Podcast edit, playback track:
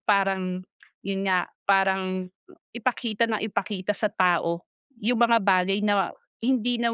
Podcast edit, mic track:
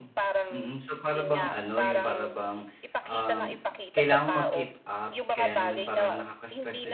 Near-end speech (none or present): present